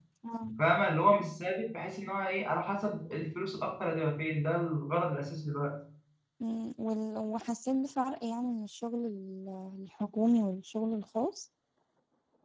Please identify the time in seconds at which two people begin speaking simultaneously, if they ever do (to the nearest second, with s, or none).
none